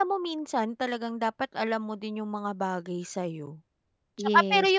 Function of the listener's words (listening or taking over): listening